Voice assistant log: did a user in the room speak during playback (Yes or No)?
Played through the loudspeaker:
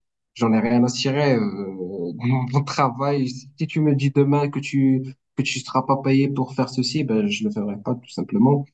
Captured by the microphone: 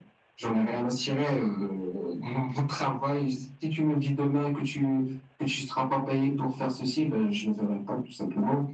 No